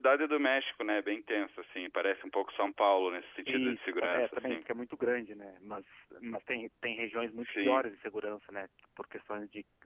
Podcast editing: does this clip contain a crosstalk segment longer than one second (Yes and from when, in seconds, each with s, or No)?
Yes, from 3.5 s